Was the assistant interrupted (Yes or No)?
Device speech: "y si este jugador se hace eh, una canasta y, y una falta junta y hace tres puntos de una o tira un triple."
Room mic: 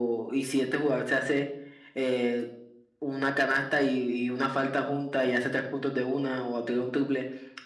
No